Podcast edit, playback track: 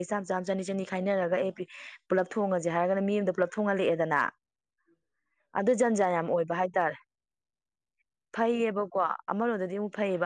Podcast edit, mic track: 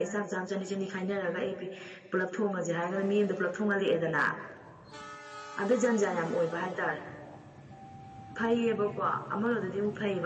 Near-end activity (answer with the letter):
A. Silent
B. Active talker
A